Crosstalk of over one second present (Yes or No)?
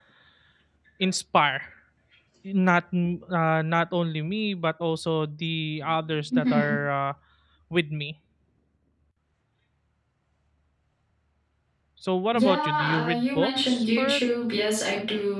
Yes